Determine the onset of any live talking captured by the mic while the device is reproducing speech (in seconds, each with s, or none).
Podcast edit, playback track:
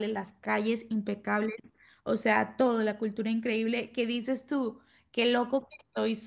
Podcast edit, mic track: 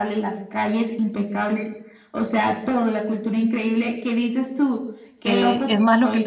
5.2 s